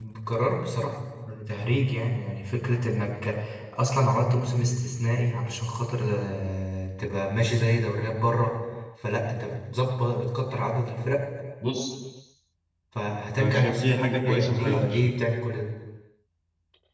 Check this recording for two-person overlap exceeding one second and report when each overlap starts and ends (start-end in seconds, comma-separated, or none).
13.4-15.1